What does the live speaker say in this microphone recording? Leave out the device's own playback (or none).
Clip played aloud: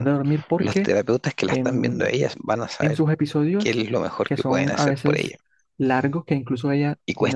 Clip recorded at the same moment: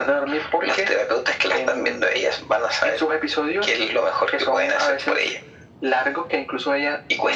none